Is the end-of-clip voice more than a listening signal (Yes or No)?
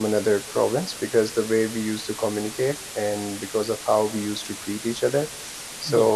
No